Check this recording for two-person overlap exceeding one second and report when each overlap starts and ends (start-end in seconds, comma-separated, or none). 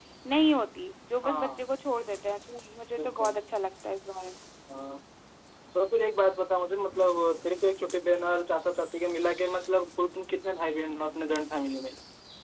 none